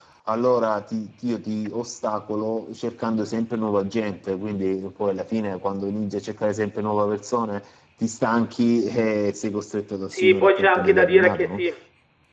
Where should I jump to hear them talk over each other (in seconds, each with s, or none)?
10.1 s